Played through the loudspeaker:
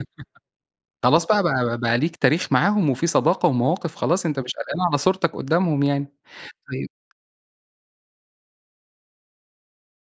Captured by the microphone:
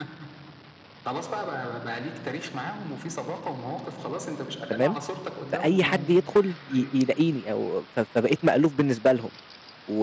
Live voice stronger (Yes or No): Yes